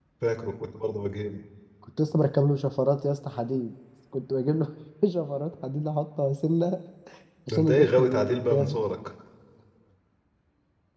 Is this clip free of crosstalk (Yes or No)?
No